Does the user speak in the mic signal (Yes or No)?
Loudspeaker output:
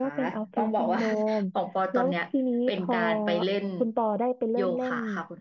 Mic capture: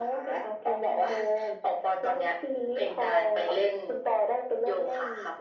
No